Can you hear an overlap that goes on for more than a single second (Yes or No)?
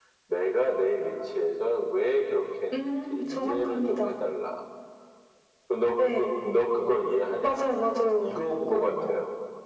Yes